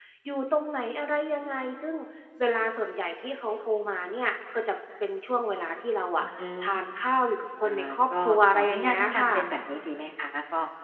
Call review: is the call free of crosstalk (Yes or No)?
No